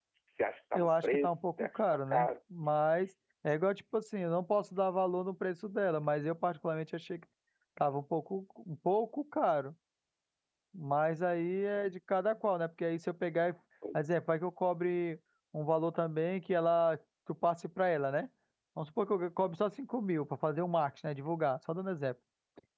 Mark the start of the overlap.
0.7 s

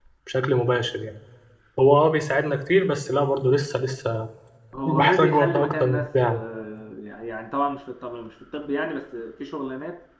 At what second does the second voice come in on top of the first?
4.8 s

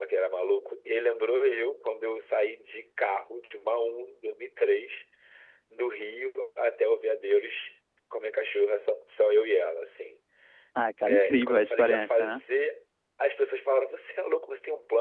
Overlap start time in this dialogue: 11.0 s

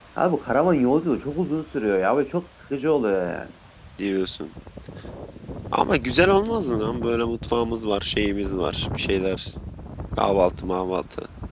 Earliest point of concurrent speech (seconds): none

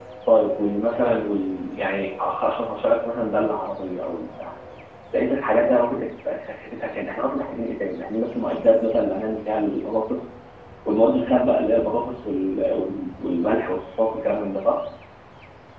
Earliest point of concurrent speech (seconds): none

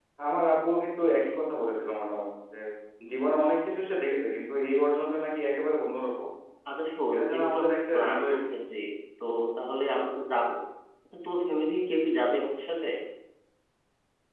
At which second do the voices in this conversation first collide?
7.1 s

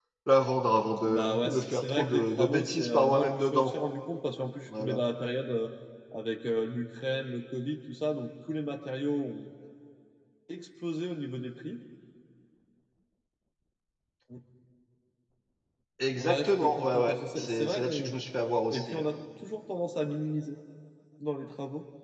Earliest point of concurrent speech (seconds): 1.0 s

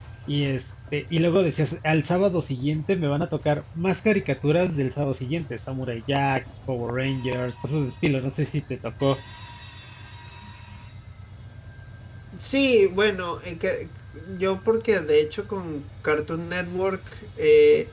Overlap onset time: none

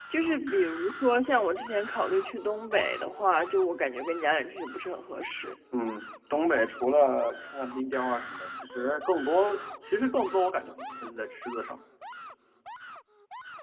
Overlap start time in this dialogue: none

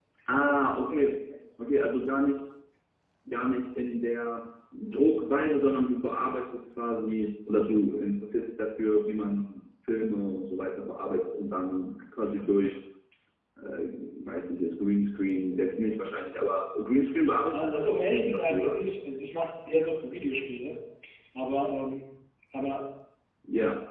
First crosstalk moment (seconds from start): 17.5 s

